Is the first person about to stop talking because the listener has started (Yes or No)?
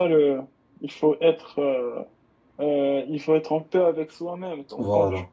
No